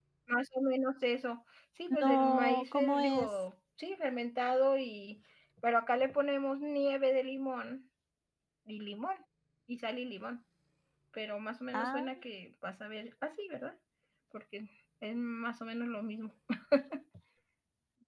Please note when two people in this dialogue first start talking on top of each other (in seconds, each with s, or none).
2.0 s